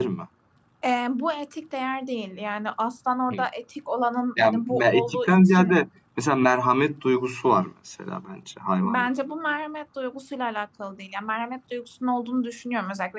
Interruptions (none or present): present